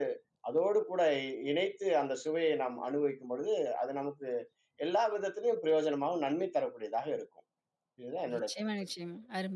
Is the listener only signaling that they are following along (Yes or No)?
No